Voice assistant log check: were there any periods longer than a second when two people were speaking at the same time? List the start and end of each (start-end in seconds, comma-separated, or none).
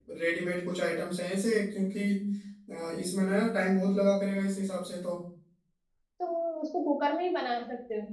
none